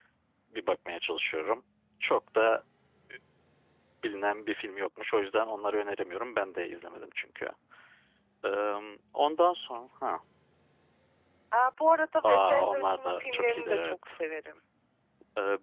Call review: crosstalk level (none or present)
present